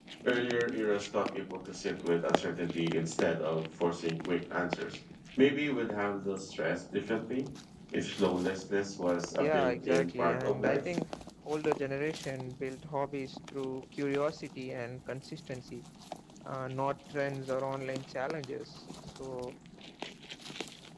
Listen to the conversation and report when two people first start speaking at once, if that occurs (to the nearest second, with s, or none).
9 s